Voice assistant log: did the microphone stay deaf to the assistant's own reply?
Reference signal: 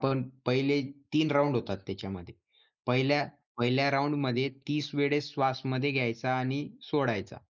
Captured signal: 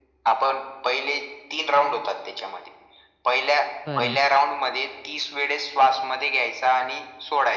No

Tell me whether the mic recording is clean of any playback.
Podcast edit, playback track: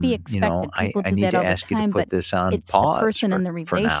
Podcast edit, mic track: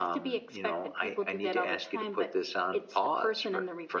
No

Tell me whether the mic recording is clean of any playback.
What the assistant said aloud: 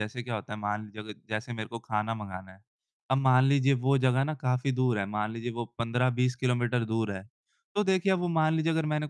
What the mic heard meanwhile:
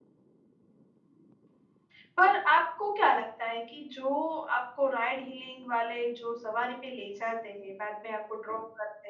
Yes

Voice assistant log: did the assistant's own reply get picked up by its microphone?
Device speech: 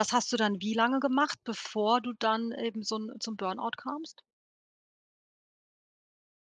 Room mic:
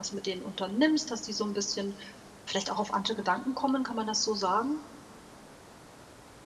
No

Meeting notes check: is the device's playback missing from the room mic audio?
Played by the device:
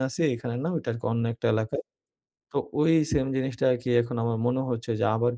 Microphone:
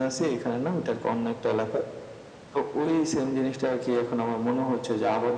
No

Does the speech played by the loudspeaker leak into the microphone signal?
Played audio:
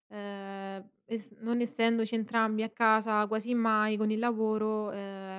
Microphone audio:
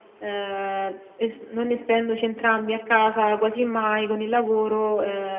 Yes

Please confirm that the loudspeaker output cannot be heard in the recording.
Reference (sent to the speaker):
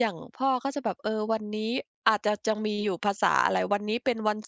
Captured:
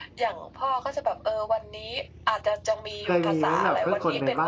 No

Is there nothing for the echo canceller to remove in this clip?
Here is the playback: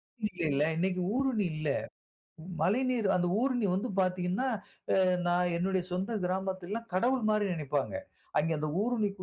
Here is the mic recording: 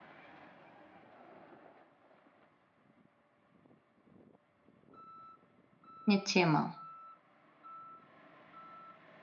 Yes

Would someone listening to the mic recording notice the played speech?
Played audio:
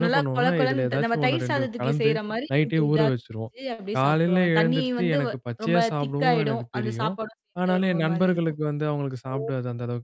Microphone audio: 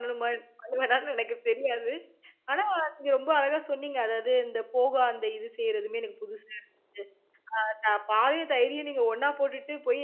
No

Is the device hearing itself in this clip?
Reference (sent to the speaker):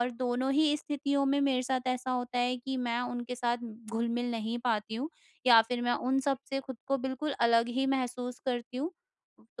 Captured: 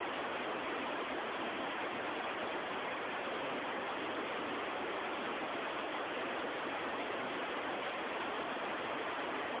No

